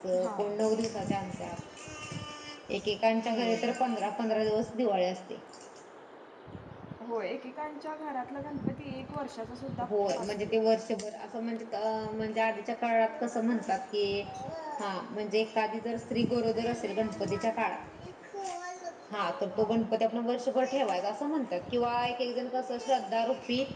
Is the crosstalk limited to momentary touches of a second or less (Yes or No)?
Yes